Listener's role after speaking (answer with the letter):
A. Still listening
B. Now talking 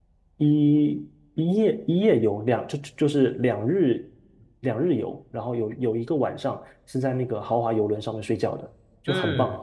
B